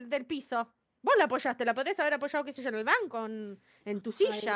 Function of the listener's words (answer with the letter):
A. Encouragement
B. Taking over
B